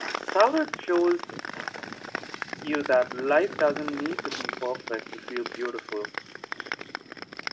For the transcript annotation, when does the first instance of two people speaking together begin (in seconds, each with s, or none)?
none